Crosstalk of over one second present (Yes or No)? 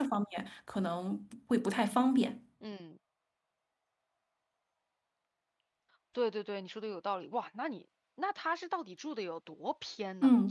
No